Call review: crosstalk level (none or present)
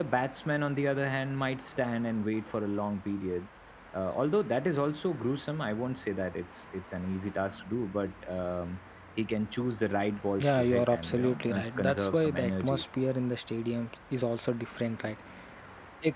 present